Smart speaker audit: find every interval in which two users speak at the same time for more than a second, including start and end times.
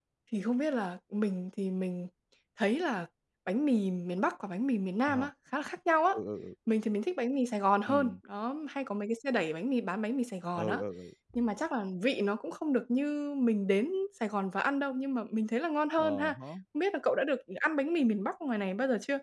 none

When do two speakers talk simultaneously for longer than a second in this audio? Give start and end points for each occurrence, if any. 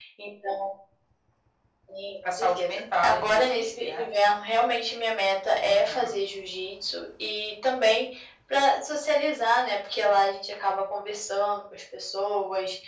2.2-4.1

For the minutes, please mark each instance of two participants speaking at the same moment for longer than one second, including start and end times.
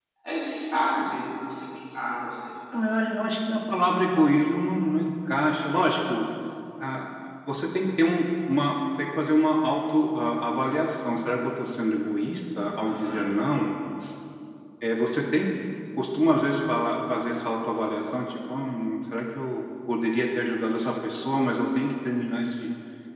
none

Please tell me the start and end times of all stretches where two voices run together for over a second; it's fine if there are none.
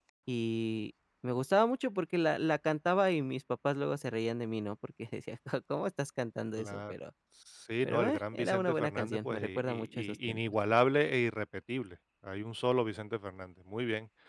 7.8-10.4

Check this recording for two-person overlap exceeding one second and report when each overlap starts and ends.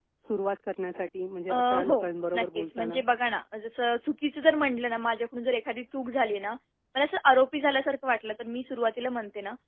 1.5-3.0

